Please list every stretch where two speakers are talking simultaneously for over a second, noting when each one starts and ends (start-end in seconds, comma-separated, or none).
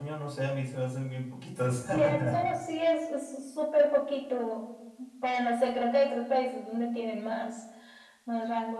none